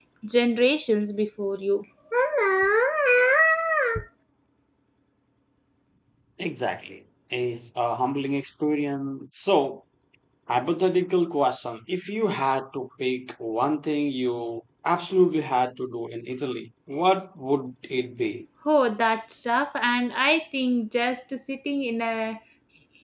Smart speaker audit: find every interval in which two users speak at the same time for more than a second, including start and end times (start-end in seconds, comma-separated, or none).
none